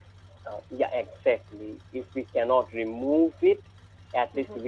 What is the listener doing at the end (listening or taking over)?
listening